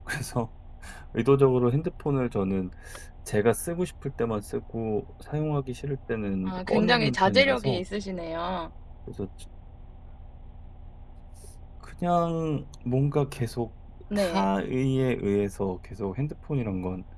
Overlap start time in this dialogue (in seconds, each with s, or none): 6.4 s